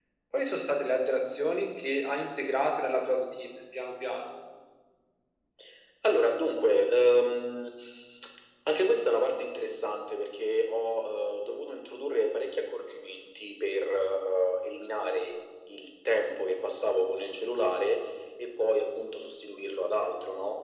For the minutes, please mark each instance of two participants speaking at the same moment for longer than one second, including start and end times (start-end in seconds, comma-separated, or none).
none